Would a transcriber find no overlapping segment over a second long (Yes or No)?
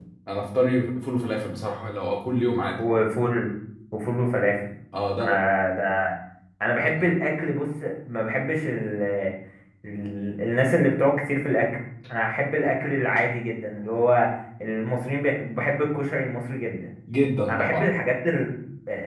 Yes